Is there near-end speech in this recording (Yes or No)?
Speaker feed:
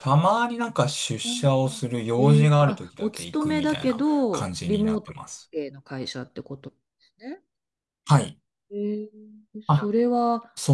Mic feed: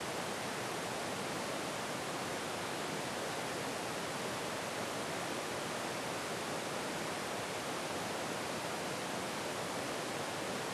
No